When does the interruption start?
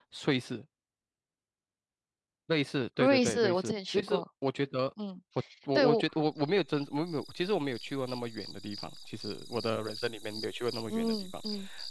3.0 s

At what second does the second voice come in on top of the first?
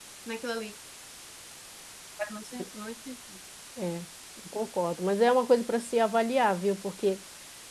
none

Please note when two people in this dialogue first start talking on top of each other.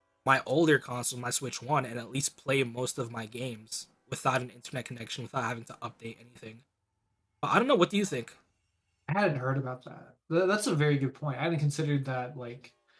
none

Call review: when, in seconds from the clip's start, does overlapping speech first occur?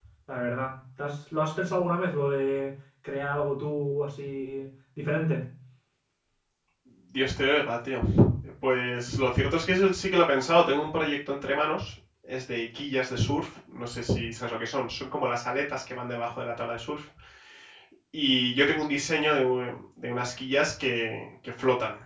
none

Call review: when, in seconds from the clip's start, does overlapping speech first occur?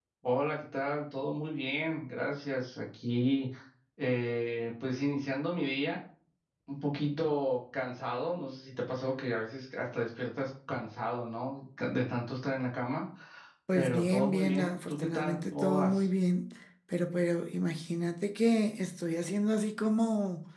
13.7 s

